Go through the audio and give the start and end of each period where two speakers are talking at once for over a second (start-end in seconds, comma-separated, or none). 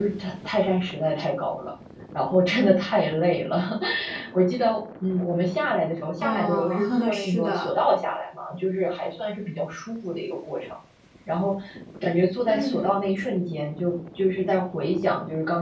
6.2-7.7